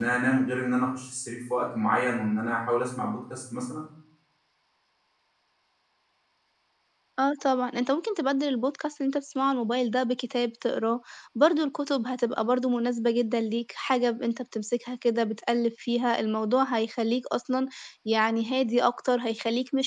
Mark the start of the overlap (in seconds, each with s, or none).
none